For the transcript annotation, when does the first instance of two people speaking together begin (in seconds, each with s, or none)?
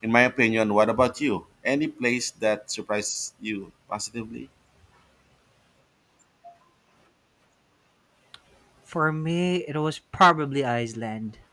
none